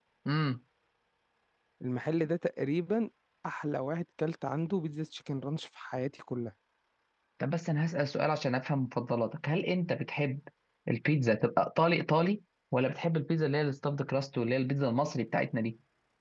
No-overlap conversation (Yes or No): Yes